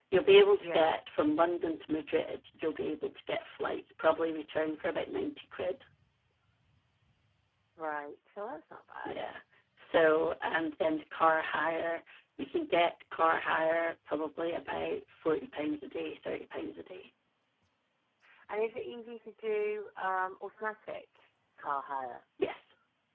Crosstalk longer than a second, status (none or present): none